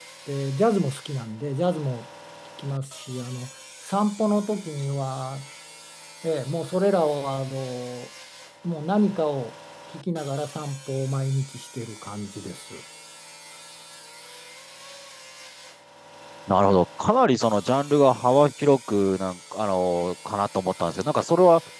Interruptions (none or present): none